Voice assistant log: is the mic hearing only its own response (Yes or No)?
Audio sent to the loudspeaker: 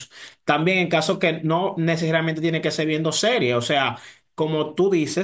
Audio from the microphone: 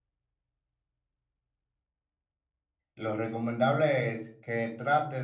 No